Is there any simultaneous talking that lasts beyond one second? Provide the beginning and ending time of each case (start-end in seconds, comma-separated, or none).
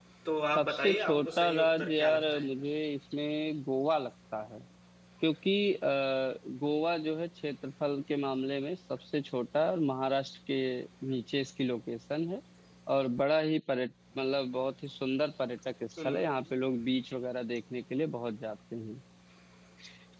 0.6-2.5